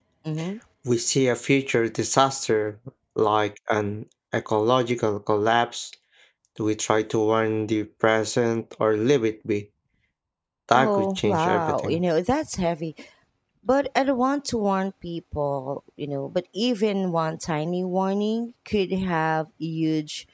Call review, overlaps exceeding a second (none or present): present